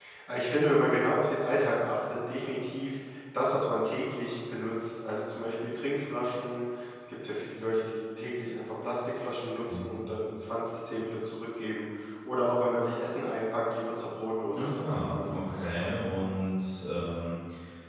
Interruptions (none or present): present